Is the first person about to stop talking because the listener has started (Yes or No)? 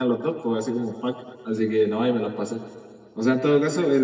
No